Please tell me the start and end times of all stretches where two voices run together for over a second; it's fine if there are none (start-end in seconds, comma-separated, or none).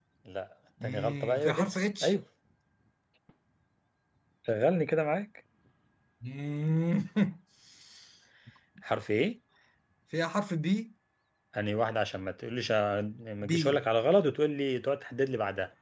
0.8-2.1